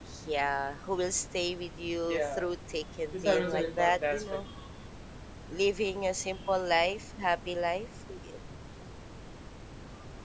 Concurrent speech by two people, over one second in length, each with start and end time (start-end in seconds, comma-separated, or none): 3.1-4.4